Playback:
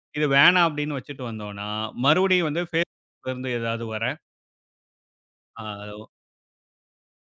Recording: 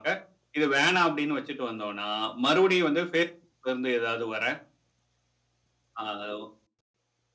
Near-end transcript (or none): none